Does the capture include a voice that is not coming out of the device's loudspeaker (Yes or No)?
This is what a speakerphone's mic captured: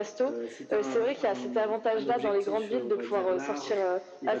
No